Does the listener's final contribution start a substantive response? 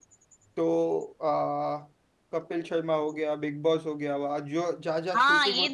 Yes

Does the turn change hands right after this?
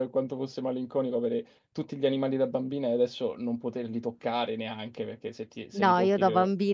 Yes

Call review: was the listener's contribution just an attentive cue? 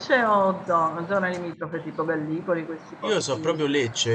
No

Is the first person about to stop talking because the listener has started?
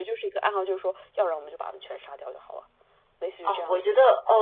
Yes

